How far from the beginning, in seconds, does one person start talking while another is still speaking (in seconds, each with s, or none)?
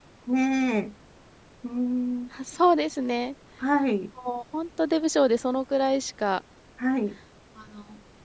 none